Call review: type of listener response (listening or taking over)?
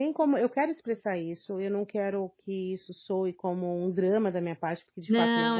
taking over